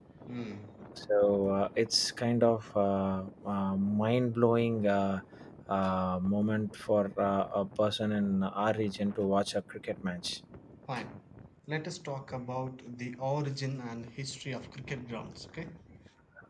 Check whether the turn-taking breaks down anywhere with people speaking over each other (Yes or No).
No